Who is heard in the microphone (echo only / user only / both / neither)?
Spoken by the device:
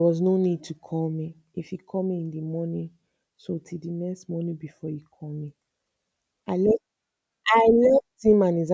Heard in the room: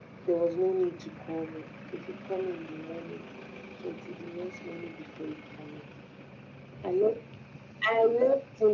echo only